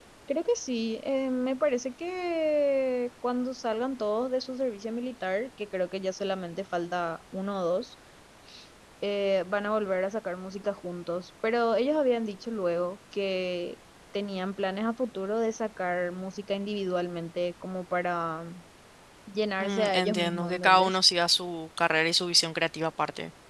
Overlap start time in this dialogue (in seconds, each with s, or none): 19.6 s